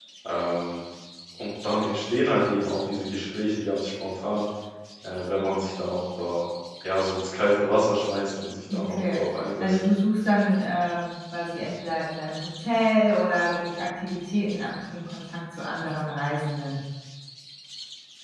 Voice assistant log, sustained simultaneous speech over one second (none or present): none